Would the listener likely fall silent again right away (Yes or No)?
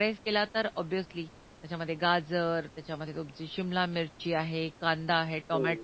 Yes